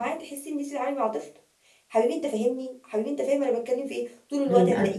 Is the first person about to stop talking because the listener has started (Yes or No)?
No